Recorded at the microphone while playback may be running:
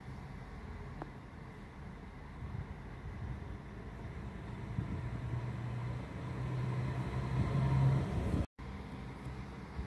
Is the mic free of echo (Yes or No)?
Yes